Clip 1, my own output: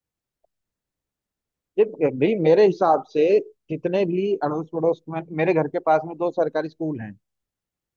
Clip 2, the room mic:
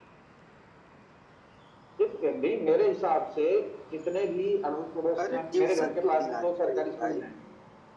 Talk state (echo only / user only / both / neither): both